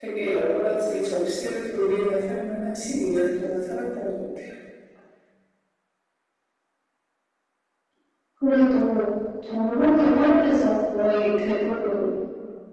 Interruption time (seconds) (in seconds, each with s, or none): none